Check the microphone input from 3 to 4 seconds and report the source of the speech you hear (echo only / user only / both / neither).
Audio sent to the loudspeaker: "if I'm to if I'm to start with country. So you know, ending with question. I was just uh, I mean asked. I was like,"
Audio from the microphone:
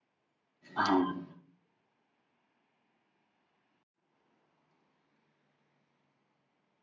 neither